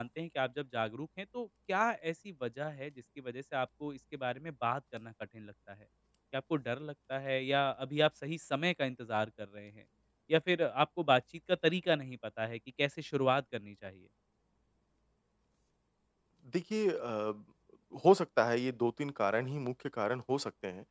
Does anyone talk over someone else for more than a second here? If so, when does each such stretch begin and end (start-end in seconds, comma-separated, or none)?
none